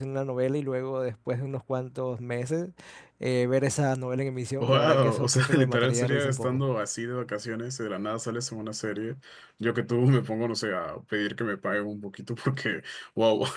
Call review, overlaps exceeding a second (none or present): present